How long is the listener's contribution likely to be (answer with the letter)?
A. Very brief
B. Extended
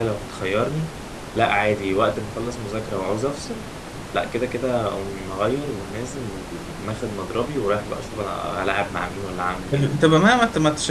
B